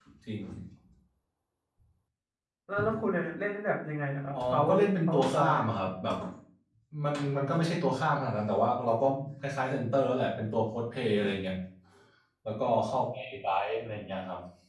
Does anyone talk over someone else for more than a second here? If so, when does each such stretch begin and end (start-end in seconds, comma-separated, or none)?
4.3-5.7